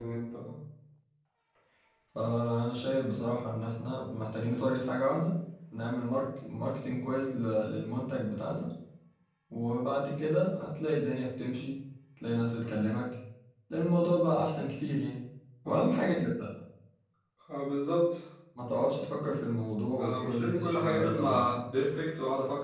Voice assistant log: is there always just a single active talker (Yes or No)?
No